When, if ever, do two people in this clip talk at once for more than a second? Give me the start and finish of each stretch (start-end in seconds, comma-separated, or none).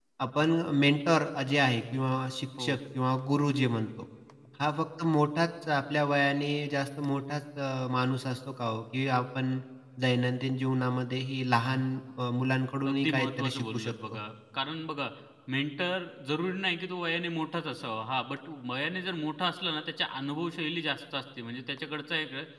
12.9-14.2